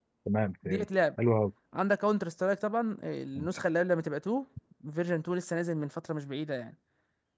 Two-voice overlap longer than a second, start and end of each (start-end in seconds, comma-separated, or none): none